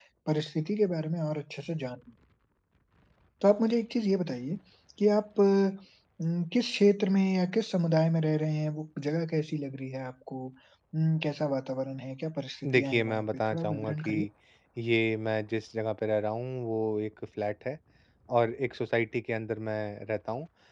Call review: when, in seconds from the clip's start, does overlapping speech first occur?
12.6 s

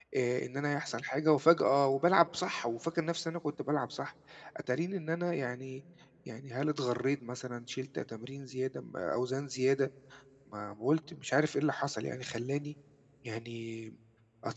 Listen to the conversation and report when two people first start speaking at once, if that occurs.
none

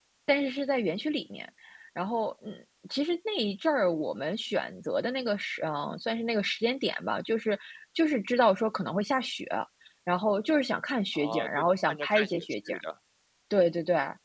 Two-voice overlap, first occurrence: 11.2 s

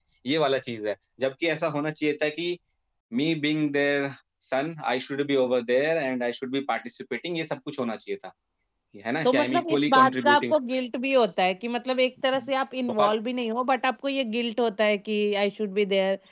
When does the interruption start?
9.2 s

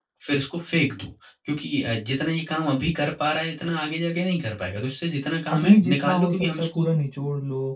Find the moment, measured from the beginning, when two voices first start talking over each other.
5.5 s

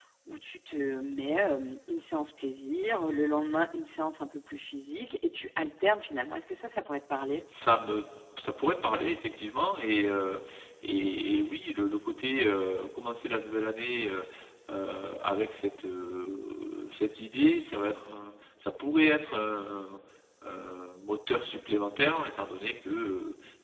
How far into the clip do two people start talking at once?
none

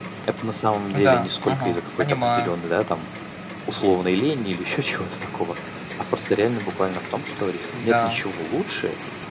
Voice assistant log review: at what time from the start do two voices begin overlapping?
0.9 s

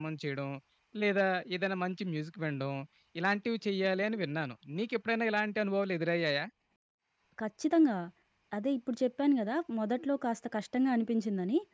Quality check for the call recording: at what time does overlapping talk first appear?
none

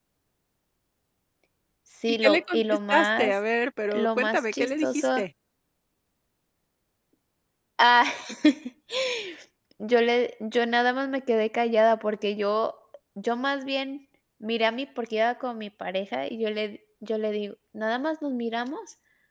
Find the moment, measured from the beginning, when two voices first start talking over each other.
2.1 s

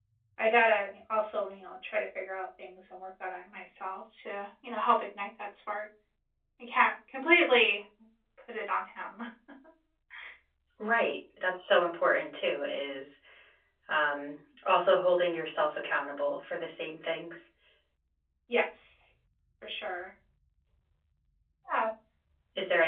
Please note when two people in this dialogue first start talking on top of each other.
none

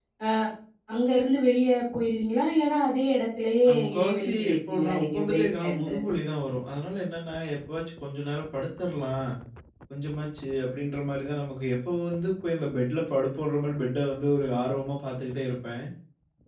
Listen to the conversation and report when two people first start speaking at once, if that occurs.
3.6 s

